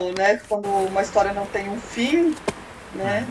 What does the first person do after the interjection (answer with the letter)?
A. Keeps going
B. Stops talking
B